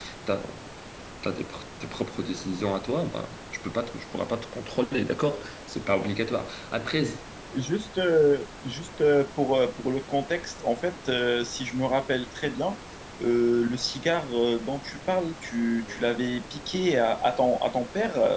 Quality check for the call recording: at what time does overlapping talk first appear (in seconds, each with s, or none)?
none